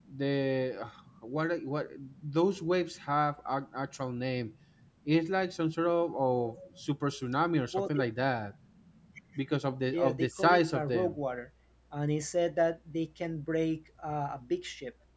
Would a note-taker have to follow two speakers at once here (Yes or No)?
Yes